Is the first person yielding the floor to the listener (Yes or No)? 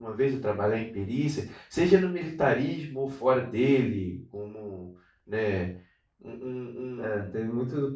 Yes